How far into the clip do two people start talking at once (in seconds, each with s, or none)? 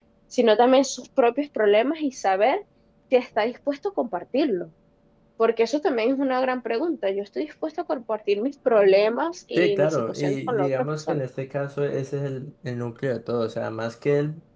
9.6 s